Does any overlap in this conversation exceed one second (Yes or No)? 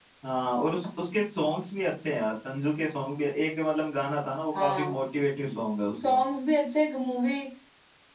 No